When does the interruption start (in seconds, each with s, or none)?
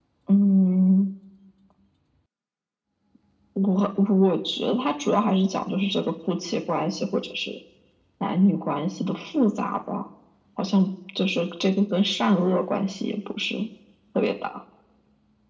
none